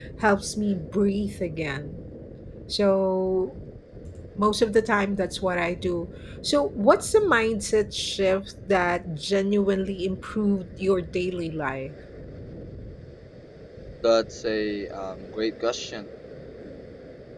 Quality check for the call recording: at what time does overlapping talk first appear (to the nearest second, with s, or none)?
none